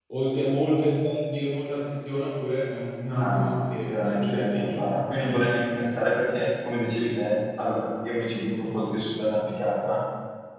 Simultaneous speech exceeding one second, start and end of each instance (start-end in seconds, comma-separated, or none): 3.2-4.8